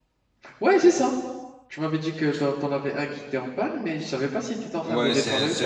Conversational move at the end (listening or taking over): taking over